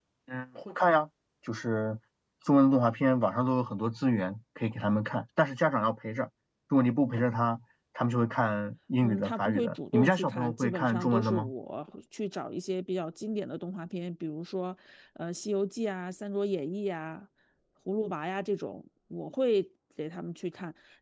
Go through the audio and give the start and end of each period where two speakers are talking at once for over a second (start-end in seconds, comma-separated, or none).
9.0-11.5